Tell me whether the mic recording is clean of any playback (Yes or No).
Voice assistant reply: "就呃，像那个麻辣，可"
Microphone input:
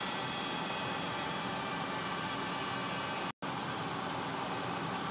Yes